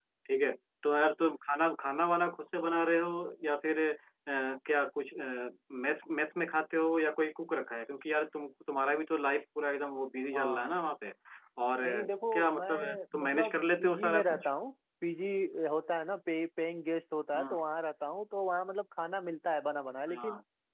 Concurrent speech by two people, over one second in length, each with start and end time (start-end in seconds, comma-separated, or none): 11.8-14.5